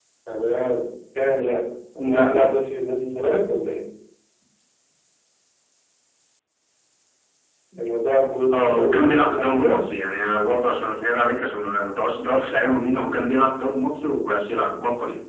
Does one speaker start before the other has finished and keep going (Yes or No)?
Yes